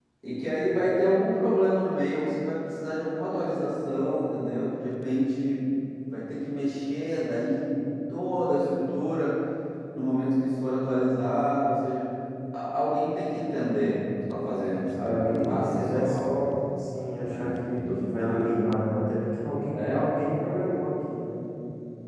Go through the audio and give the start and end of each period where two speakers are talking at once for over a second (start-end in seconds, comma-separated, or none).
15.0-16.4, 17.2-18.5